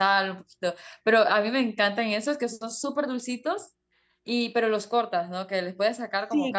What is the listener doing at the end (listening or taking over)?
taking over